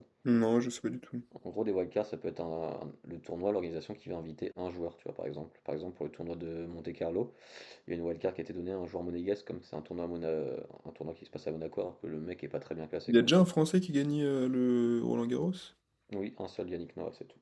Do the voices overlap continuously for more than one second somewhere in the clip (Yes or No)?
No